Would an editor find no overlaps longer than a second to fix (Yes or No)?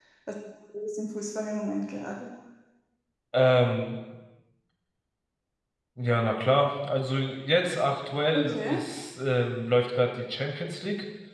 Yes